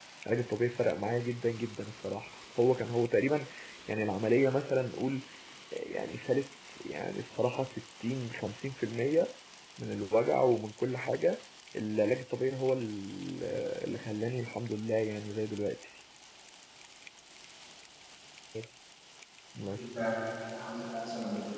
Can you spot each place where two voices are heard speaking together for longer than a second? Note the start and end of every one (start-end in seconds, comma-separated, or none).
none